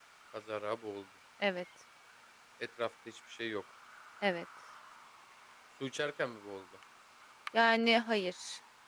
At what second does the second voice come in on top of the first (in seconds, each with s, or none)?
none